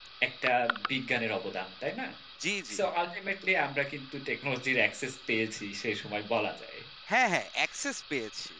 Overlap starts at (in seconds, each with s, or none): none